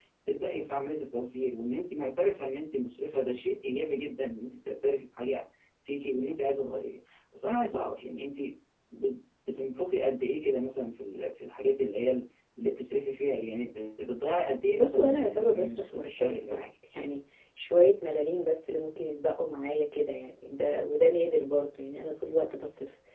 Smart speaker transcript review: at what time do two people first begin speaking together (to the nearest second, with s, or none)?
15 s